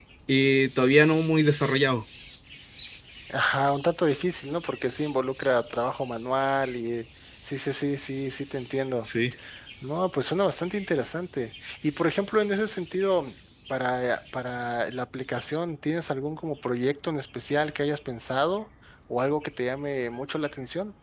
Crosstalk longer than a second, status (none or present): none